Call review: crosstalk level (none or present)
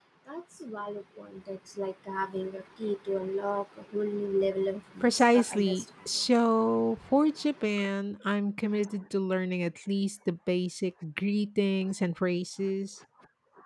present